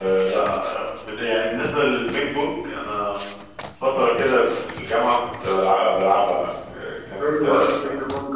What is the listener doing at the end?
taking over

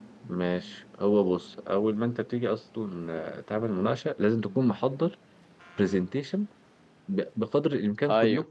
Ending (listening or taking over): listening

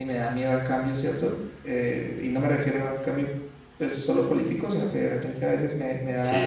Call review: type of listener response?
listening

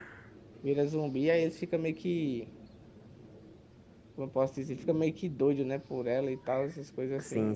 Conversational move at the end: taking over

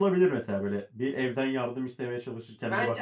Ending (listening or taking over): taking over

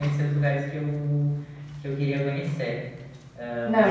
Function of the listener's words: taking over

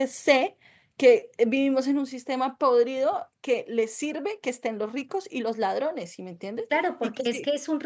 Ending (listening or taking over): taking over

